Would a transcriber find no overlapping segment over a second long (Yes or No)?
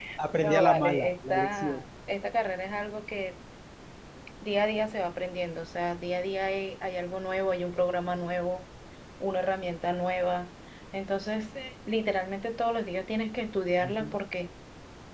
No